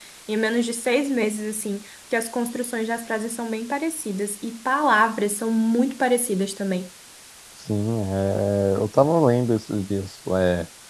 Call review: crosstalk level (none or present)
none